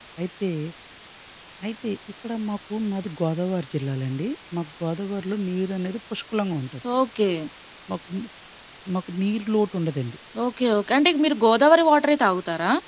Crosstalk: none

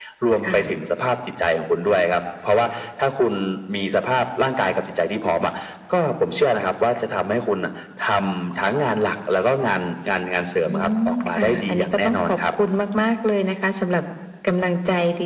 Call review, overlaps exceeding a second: present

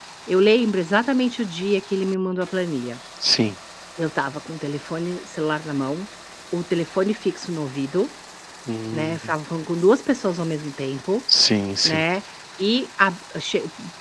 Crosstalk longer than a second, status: none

